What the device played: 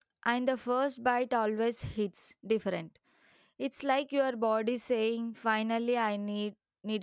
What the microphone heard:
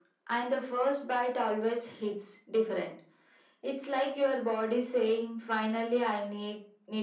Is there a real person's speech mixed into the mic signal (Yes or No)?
No